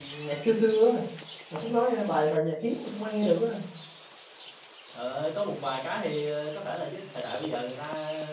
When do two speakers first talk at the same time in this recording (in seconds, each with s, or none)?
none